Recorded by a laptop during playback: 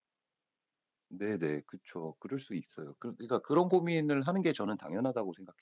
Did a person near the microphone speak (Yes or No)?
Yes